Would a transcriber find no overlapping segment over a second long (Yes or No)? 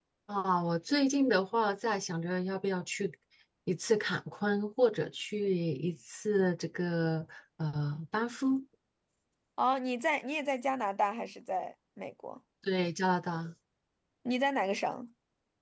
Yes